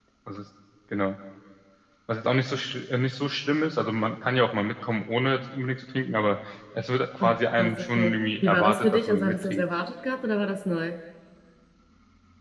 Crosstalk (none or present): present